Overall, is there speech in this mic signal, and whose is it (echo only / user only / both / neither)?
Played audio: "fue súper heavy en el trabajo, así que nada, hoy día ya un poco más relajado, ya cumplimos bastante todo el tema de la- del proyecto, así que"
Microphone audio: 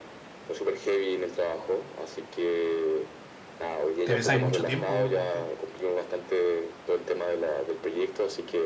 both